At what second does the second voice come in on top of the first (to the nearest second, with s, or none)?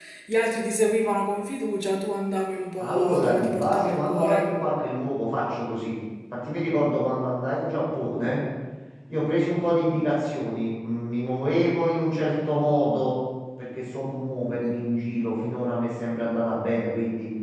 3 s